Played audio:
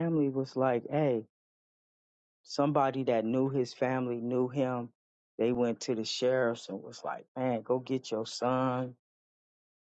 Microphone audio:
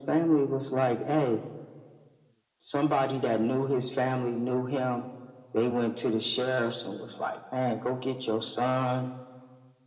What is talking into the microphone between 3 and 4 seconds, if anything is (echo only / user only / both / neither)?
echo only